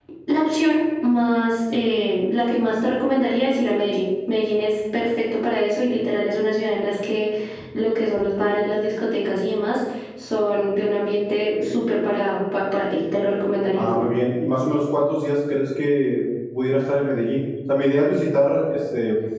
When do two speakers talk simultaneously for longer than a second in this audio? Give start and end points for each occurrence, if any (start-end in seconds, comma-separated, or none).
none